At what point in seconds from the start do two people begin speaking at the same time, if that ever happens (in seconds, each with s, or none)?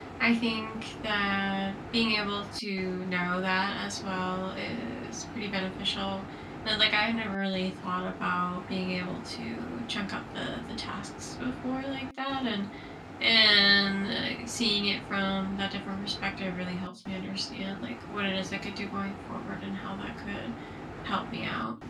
none